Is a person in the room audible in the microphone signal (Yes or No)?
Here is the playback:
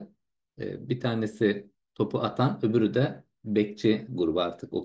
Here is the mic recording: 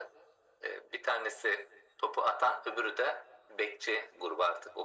No